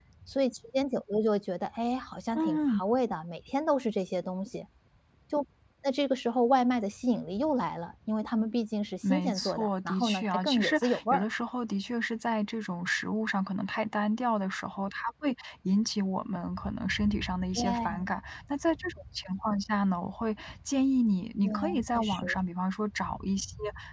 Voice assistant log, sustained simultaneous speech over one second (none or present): present